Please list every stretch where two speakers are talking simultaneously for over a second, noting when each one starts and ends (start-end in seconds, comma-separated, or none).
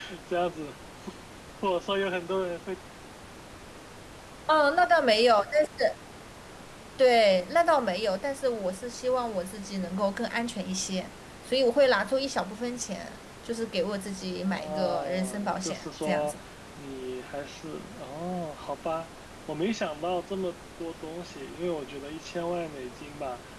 14.4-16.4